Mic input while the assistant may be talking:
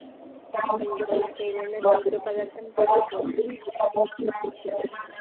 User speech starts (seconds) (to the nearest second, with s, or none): 1 s